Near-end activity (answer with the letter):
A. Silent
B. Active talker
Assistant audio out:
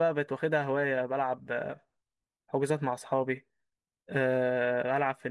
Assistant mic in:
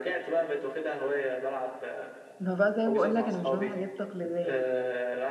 B